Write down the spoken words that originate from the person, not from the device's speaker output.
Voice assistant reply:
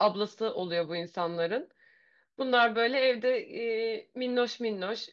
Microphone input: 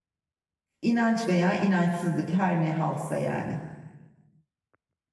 İnanç veya inançsızlık her ne halsa yani.

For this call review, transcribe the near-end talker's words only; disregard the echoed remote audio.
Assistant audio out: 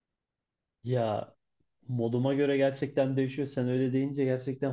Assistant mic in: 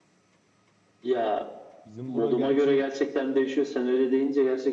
Bizim bura gerçi

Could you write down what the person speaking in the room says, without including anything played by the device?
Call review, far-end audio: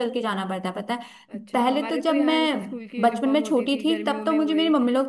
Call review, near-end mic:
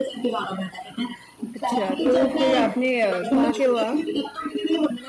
अच्छा तो फिर आपने अ, कहाँ के हो आप

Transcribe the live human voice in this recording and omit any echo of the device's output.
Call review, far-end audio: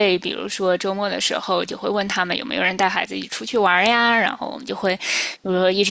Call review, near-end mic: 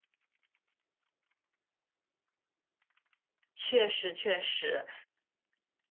确实确实，

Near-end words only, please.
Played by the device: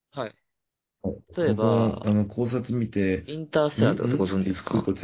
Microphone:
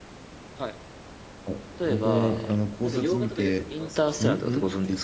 へえー。なんか洋画とかよく見ますか

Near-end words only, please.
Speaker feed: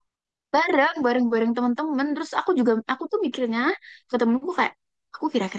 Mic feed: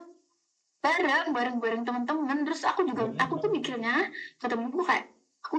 Umur lima.

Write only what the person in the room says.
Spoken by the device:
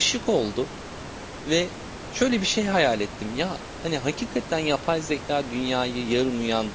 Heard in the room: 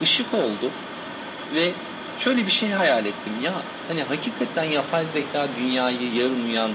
none

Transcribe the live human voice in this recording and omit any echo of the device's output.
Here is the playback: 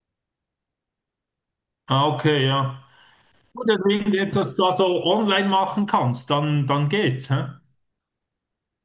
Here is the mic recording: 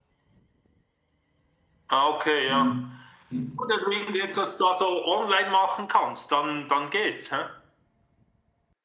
Mhm. Mhm.

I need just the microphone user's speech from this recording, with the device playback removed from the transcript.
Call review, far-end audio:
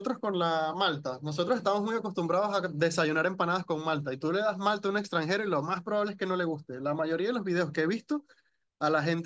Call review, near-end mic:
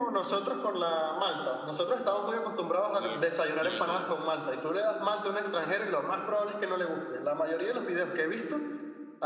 Y es sin alcohol.

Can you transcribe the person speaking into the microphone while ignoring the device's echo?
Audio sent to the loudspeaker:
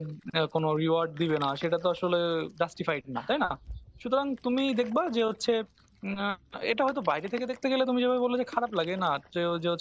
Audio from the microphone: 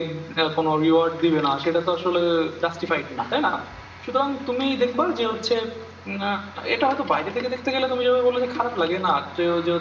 none

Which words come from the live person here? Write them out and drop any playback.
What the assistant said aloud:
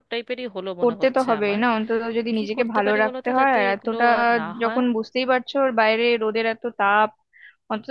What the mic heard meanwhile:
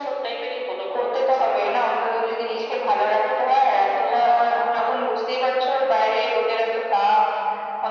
none

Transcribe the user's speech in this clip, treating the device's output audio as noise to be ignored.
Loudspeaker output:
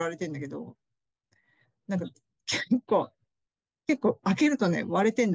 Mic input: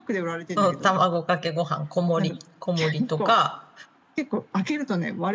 うん卵かけご飯、小盛り、小盛りとか、

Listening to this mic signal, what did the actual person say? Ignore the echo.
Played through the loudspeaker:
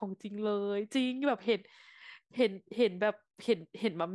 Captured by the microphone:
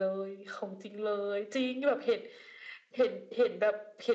none

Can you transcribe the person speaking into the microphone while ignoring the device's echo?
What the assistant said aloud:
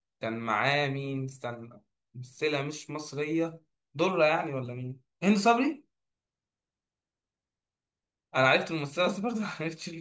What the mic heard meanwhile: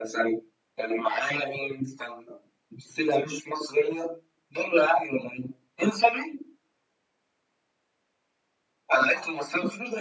none

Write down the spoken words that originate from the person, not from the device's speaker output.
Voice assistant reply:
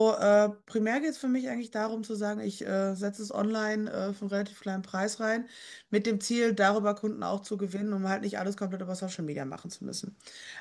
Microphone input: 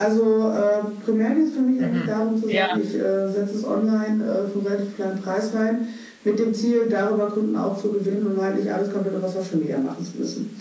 Mhm. Ja.

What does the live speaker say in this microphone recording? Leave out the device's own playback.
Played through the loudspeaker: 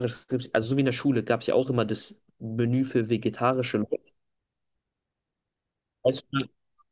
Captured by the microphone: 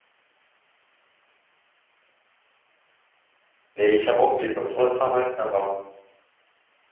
Nee, ich habe auch überlegt, bei Zoller zu arbeiten, aber

